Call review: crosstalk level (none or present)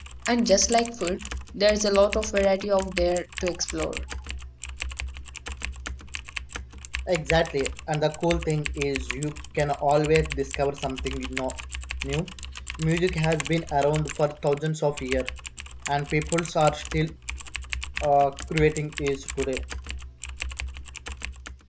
none